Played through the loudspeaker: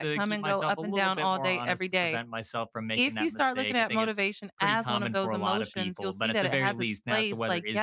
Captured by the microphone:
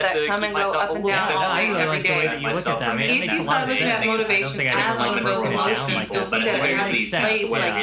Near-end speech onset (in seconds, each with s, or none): 1.1 s